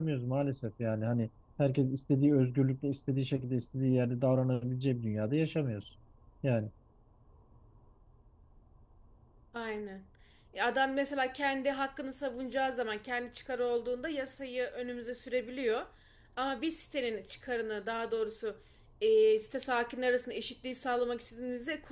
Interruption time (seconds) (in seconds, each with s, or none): none